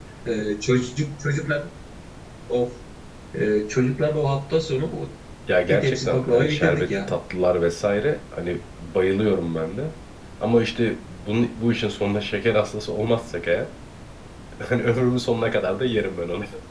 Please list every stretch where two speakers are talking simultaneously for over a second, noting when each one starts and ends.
5.7-7.2

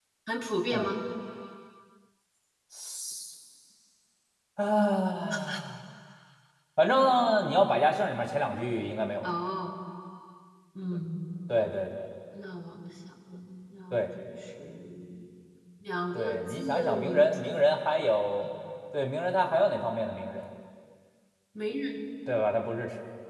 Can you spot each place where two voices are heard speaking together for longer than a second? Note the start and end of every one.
16.1-17.4

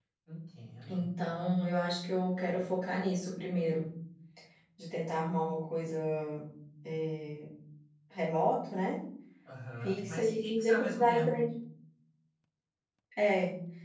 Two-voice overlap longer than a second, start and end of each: 9.8-11.4

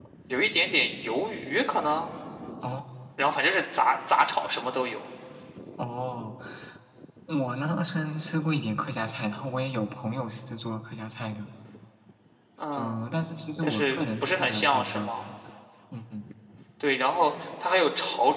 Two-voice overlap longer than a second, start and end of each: 13.6-15.2

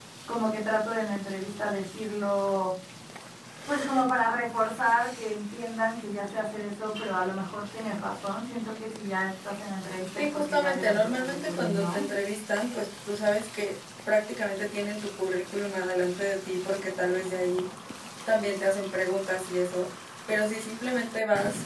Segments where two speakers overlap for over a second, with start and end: 10.2-12.0

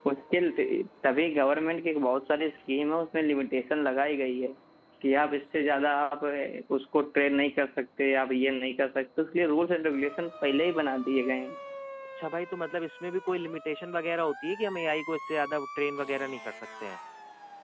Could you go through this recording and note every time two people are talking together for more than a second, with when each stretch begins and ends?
none

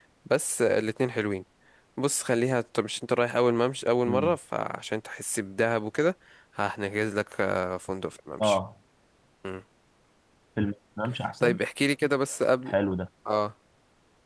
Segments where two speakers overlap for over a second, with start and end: none

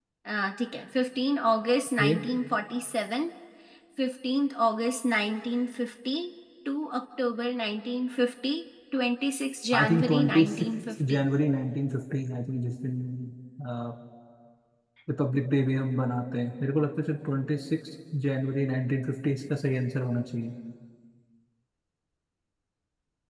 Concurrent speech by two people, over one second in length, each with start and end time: 9.7-11.2

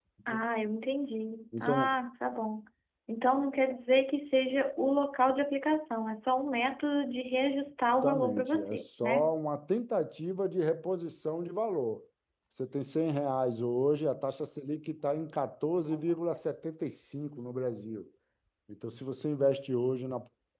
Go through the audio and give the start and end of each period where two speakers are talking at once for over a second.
8.0-9.3

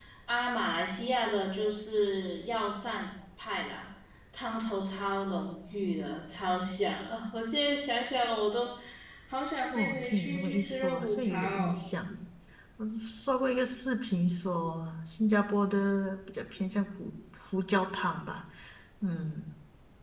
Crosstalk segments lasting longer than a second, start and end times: 9.7-11.8

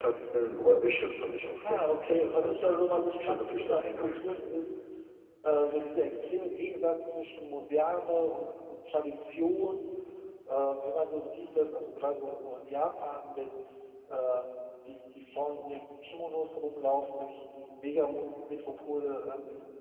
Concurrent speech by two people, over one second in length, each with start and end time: 1.6-4.3

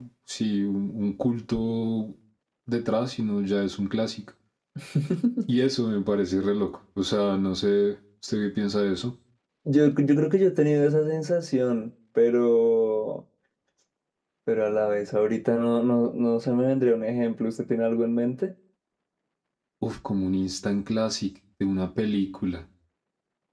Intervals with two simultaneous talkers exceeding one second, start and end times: none

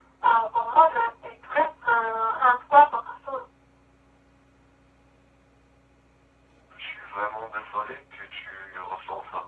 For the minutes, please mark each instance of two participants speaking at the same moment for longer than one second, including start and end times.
none

